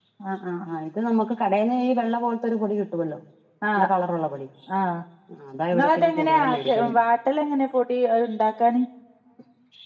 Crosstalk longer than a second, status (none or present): present